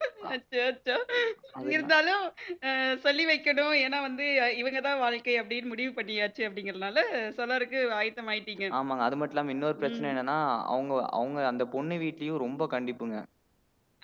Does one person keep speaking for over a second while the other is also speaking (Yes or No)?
No